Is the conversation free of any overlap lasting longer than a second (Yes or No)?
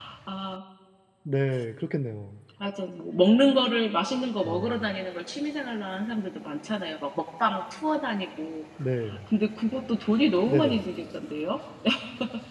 Yes